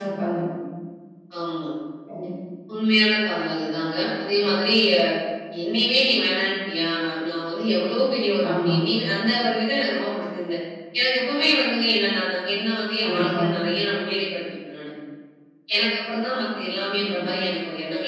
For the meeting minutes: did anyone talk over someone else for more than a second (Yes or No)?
No